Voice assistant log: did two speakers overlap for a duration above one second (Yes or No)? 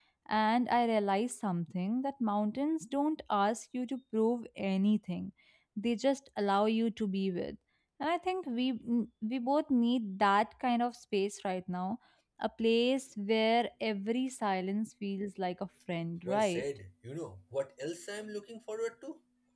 No